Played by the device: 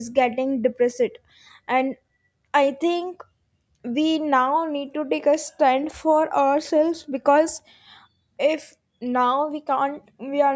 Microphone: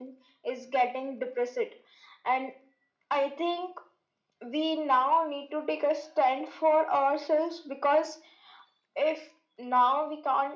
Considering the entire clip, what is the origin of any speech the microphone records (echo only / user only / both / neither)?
echo only